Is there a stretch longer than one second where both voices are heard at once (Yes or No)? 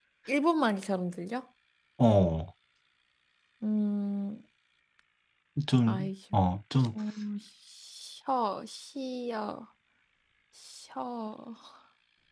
No